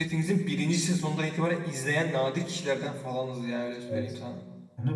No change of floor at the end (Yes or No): No